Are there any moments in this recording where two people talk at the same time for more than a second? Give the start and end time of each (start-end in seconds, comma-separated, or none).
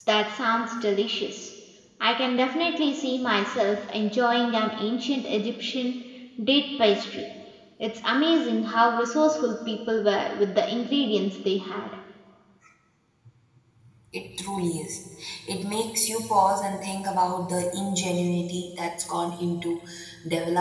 none